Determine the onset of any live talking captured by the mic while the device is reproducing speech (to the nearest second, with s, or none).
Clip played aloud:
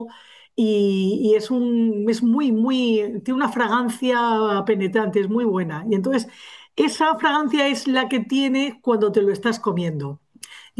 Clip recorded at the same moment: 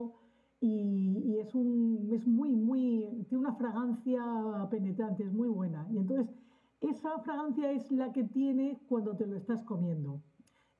none